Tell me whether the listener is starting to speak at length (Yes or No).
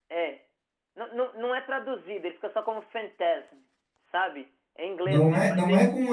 Yes